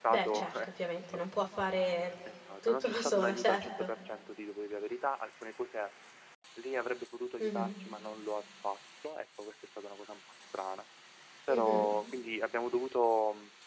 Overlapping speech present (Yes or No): Yes